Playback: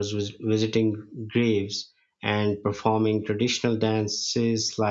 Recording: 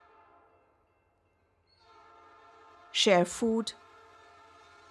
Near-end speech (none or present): present